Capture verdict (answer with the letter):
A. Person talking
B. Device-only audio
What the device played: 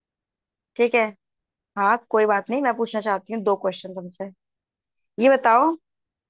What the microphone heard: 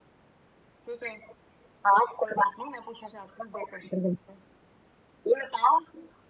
B